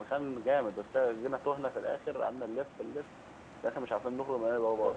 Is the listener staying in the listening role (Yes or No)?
No